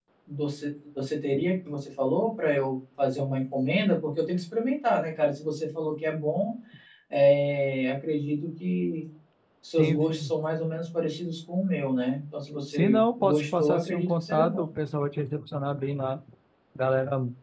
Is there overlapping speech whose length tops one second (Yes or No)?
Yes